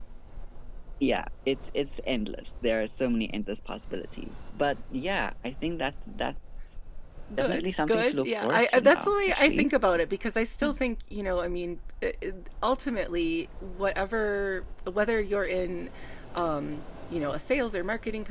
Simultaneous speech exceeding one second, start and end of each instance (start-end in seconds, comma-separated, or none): 7.4-9.7